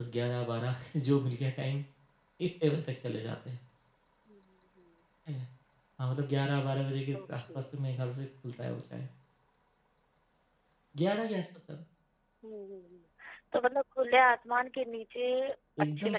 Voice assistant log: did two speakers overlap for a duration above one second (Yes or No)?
No